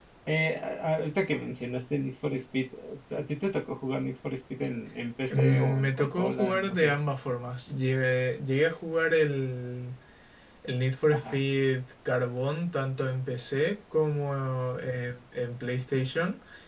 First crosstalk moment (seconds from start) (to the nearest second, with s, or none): 5 s